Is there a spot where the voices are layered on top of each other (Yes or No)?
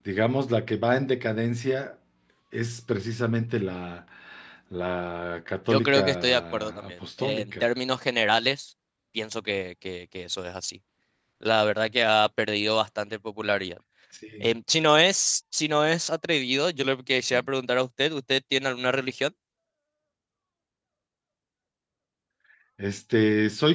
Yes